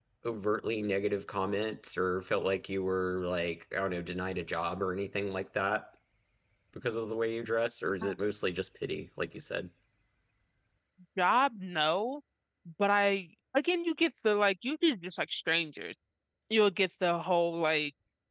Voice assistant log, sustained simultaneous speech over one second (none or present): none